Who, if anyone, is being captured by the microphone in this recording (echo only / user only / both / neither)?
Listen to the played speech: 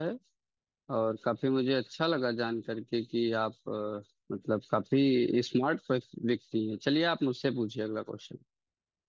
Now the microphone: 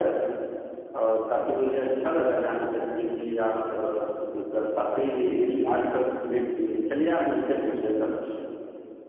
echo only